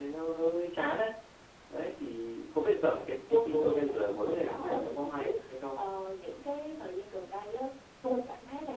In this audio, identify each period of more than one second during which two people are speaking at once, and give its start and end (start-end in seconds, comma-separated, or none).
2.9-5.8